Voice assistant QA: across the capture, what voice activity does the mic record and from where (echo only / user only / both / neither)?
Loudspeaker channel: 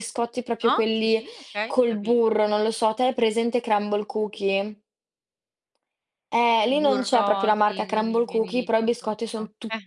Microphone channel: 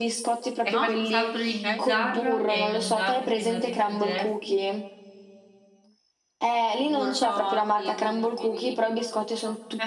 both